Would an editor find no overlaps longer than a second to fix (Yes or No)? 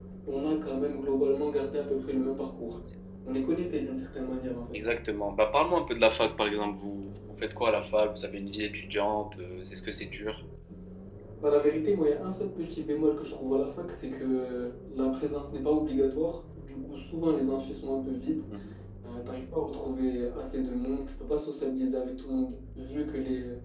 Yes